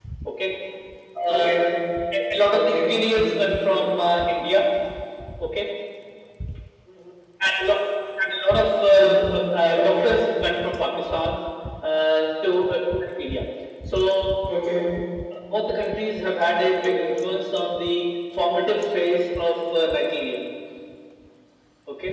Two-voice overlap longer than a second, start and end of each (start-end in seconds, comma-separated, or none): 2.5-3.9, 8.9-10.2